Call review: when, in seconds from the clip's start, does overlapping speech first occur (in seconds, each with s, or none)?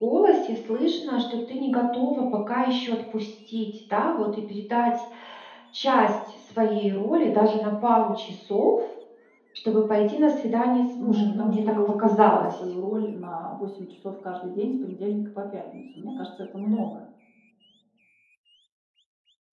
11.0 s